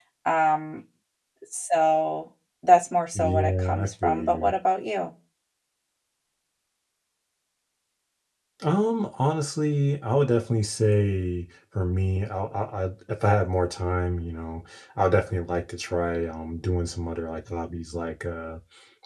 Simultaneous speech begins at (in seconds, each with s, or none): 3.1 s